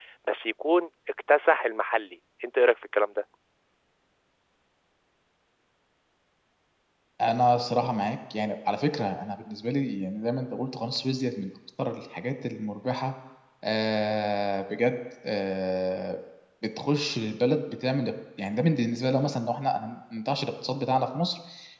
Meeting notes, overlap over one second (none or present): none